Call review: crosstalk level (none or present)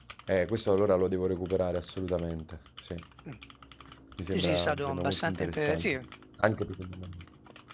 present